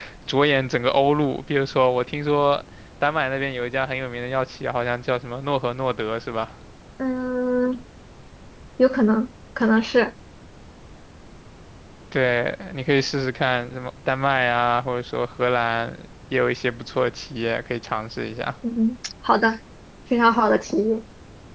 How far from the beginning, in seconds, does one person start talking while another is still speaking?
none

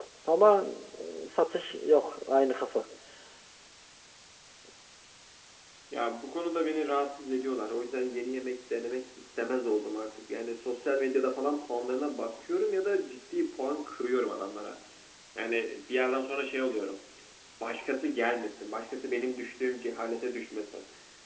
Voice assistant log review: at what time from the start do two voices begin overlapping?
none

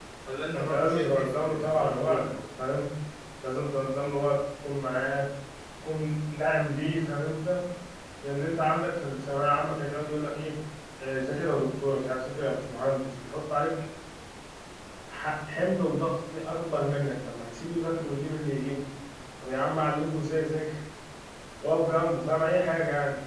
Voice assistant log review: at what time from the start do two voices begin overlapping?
0.5 s

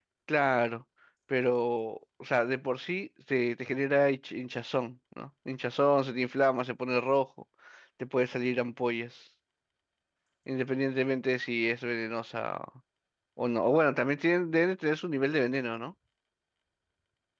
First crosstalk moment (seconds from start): none

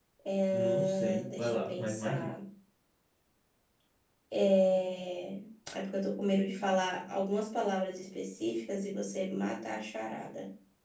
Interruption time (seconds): 0.5 s

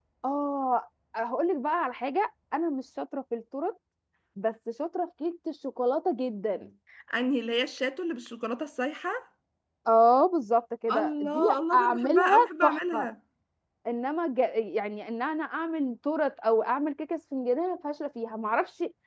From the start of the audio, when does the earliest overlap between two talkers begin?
10.9 s

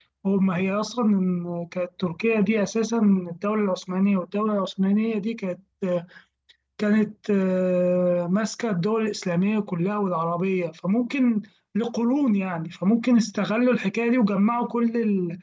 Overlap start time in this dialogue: none

